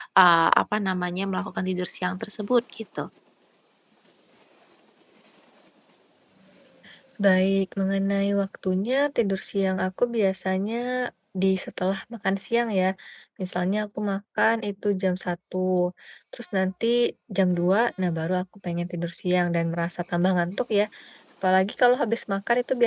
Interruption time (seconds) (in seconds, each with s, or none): none